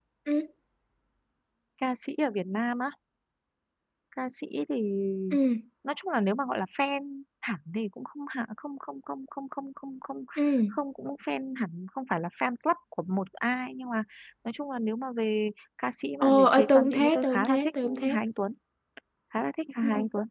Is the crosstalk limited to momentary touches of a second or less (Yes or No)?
No